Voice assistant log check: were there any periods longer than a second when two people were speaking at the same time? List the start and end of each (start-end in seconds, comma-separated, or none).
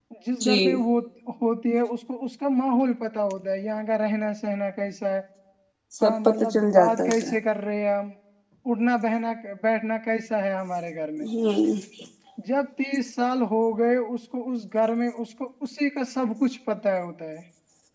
6.0-7.3